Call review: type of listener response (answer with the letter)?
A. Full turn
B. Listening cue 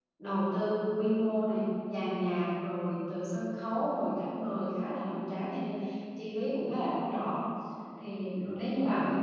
B